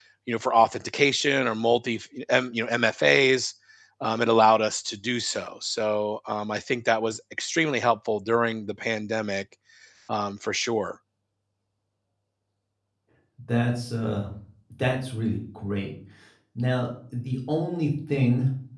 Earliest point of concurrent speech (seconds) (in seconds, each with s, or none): none